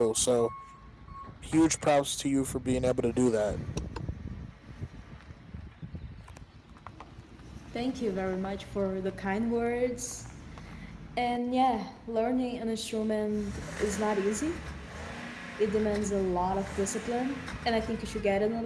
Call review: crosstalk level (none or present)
none